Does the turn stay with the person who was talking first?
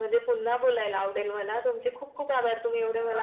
Yes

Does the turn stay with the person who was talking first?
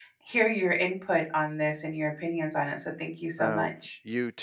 No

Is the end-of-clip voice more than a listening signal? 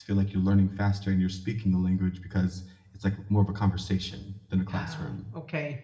Yes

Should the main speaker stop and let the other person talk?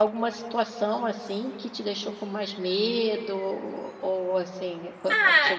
Yes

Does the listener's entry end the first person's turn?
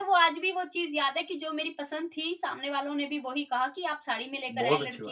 Yes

